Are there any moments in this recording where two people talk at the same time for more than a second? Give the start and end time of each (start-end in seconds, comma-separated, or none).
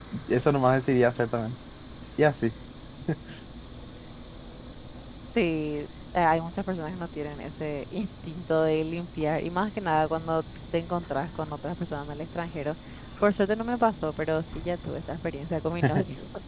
none